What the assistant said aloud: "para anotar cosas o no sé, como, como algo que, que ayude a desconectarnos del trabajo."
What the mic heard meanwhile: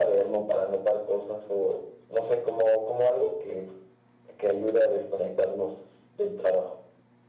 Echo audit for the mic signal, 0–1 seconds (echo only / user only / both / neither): echo only